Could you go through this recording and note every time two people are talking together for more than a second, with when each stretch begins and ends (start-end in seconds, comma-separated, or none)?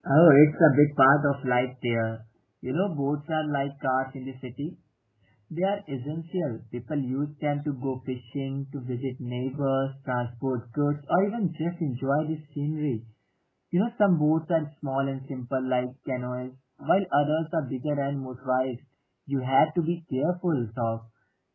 none